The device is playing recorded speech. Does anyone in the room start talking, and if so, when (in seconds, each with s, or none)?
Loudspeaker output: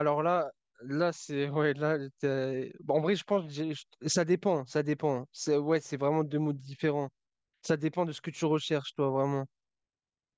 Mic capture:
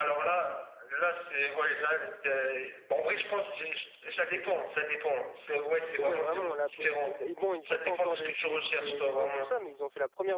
6.0 s